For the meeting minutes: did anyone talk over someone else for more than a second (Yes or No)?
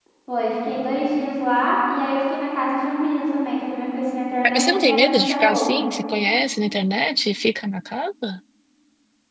Yes